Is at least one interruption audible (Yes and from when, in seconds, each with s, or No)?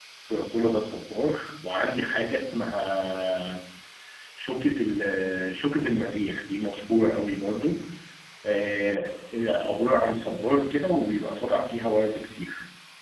No